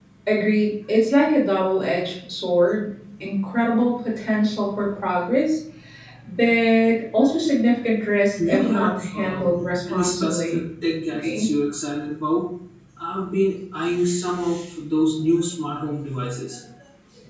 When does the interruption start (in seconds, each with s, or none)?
8.5 s